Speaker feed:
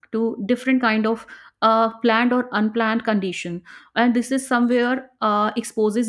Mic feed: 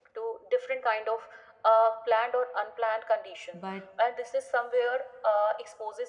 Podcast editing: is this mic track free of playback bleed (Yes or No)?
No